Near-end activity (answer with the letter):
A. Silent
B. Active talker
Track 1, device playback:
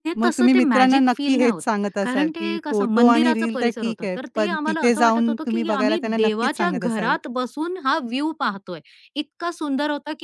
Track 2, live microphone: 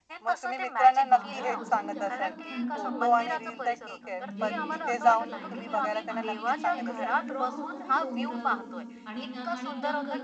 B